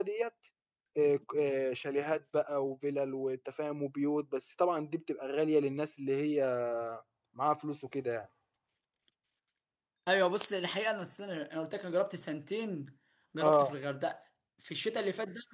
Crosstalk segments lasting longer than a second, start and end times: none

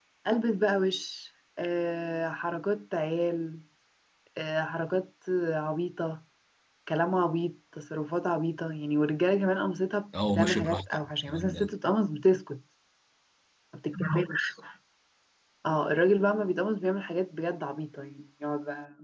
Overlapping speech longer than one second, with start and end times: 10.2-11.7

